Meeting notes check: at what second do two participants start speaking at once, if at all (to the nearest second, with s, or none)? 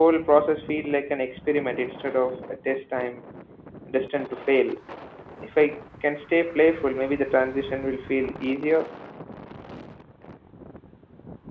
none